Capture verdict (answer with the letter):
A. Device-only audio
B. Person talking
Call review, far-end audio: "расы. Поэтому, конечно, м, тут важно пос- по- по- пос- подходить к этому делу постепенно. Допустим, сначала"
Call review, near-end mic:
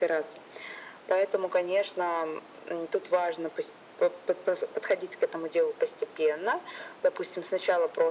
A